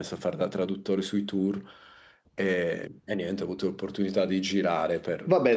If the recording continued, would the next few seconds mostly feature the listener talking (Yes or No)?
Yes